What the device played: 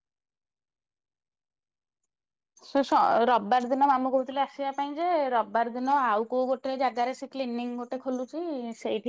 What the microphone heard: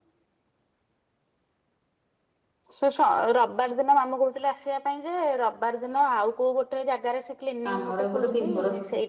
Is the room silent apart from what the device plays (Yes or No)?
No